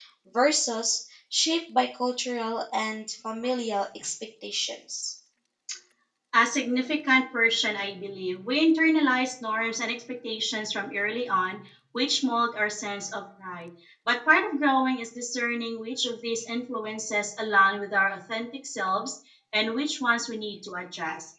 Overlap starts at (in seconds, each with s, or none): none